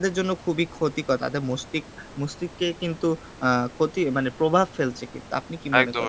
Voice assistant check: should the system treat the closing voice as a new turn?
Yes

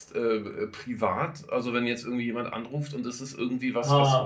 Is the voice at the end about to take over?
No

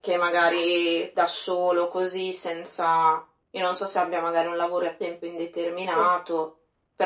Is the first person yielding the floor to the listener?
No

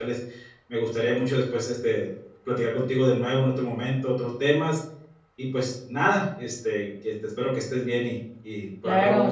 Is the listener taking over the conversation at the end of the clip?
Yes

